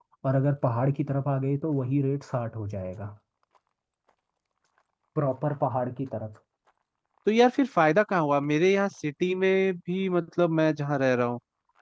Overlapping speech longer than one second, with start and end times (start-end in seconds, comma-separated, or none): none